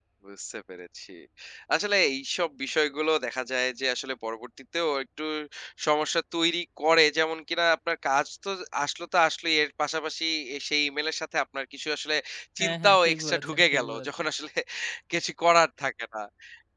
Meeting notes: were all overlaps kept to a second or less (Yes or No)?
No